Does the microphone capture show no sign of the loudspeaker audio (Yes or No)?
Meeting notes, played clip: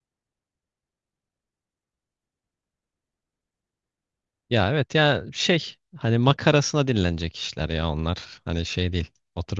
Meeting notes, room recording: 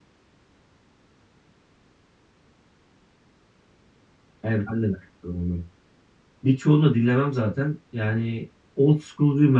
Yes